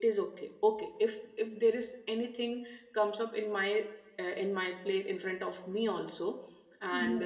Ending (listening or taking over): listening